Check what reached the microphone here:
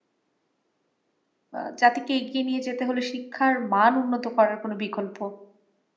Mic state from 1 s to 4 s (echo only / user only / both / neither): user only